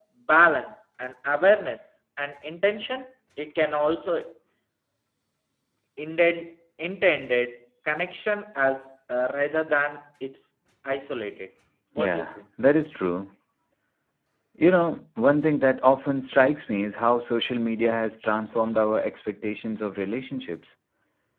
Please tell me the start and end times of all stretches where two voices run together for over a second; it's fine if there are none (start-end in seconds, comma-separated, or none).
none